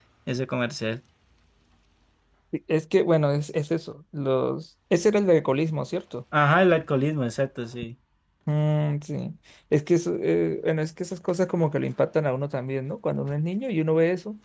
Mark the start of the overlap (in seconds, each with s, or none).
none